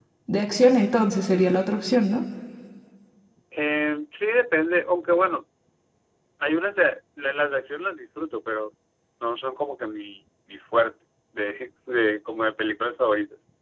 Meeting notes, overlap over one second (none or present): none